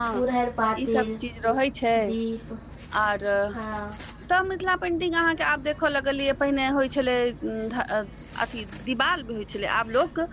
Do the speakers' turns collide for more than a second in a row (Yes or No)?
No